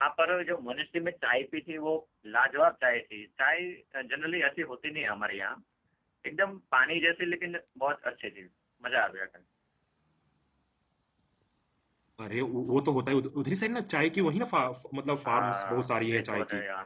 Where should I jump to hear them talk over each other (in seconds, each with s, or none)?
15.2 s